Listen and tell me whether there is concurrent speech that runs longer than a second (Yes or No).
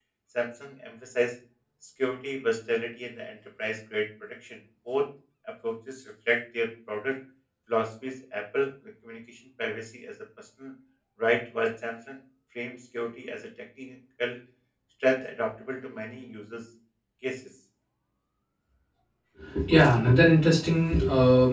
No